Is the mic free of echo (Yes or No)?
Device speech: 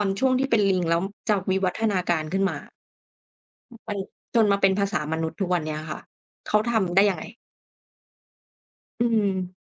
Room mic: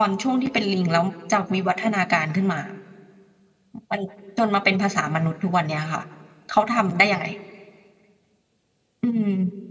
No